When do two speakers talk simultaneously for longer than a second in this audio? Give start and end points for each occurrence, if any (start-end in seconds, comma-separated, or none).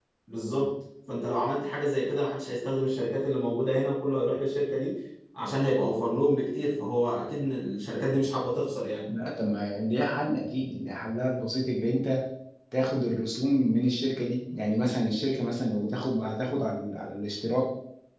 none